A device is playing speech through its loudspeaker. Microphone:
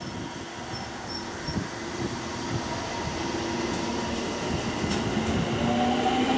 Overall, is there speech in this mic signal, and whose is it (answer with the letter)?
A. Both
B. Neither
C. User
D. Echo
B